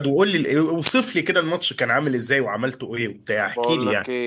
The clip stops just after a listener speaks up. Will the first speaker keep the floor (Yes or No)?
No